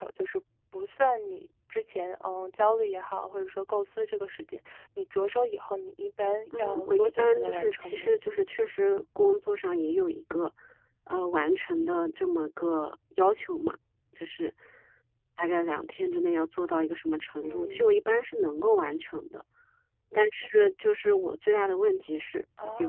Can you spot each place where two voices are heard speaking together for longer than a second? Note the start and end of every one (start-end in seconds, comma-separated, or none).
6.6-8.1